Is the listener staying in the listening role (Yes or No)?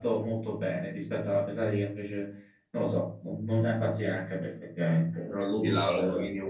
No